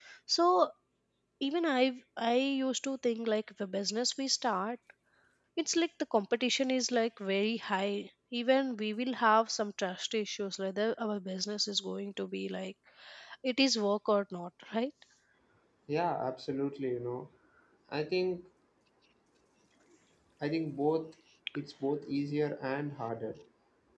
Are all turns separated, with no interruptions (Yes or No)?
Yes